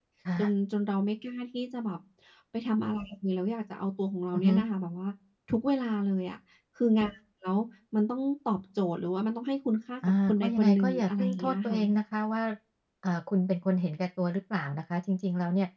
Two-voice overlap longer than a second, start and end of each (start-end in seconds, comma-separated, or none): 10.3-11.8